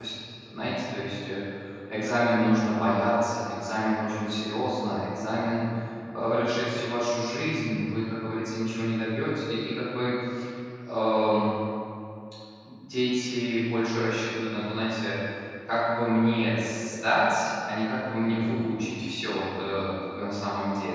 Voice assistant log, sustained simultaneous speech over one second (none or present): present